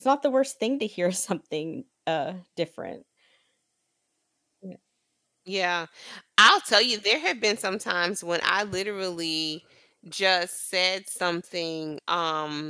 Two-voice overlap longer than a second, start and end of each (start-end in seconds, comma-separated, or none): none